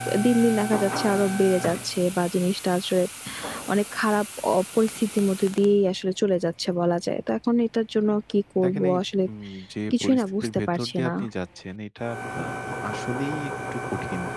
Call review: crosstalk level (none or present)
present